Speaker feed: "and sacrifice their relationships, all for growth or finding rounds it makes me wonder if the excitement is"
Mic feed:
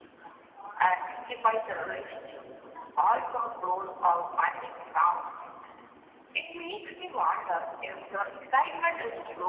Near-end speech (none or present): none